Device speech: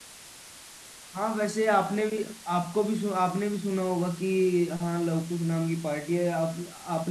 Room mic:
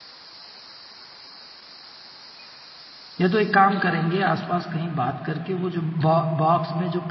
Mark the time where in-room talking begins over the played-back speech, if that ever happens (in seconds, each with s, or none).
3.2 s